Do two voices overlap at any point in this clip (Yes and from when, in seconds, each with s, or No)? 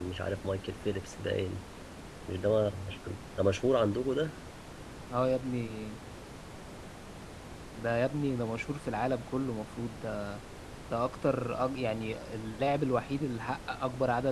No